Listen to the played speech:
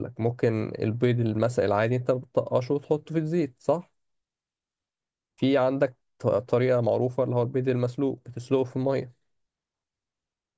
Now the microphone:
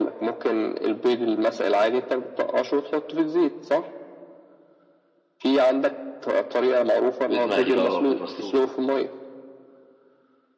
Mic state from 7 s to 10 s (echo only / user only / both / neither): both